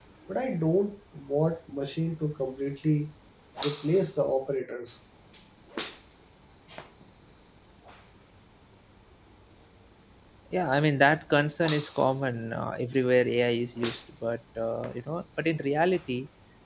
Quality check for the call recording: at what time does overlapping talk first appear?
none

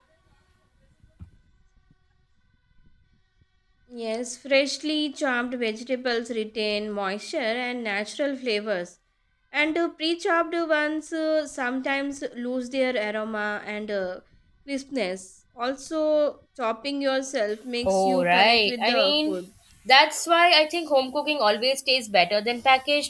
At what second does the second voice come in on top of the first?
18 s

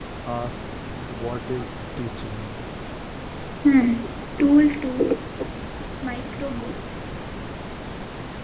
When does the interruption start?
none

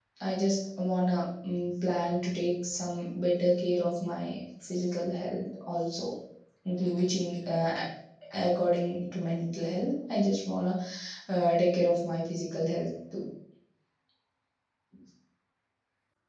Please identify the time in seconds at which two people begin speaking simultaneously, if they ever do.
none

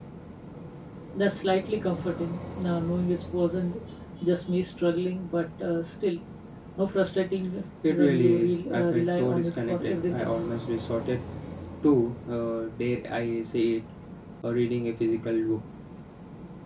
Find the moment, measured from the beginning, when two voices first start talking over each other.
8 s

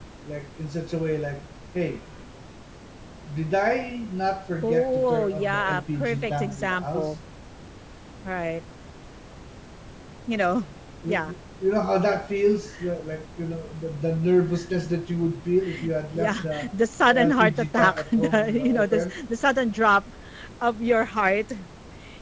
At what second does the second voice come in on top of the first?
5 s

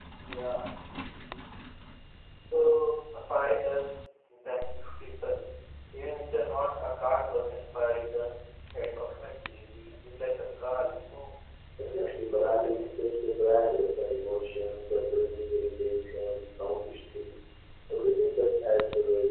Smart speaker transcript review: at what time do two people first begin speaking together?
12 s

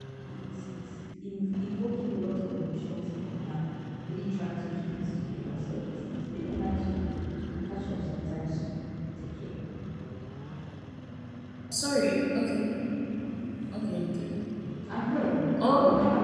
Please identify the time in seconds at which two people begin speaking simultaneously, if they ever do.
none

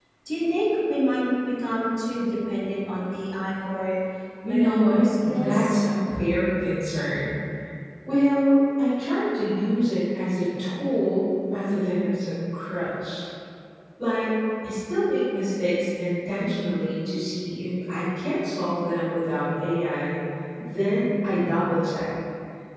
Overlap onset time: 4 s

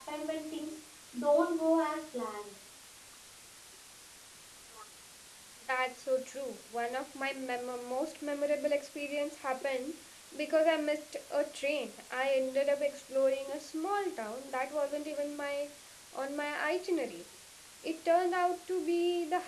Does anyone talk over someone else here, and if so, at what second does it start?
none

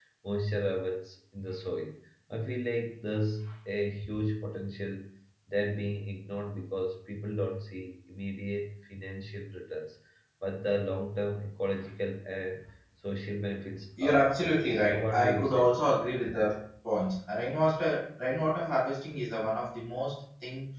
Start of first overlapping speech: 14 s

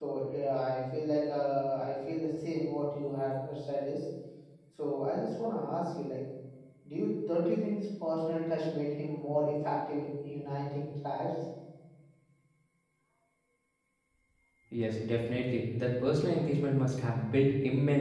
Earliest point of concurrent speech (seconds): none

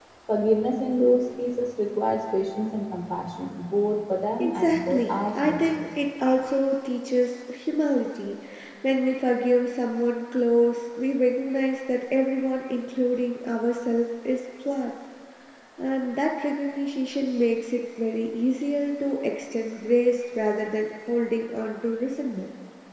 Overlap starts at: 4 s

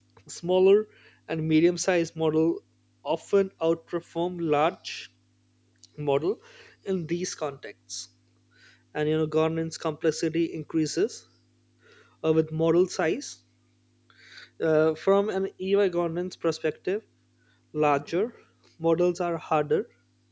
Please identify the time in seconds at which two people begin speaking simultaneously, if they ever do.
none

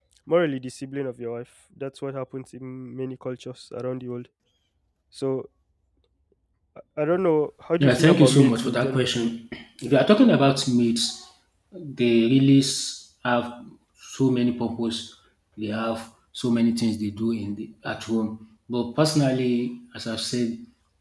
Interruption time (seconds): 8 s

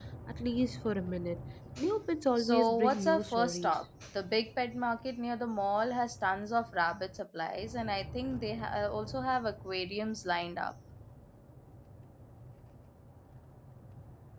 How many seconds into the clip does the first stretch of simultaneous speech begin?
2 s

